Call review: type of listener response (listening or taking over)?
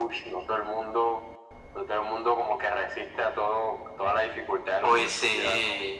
taking over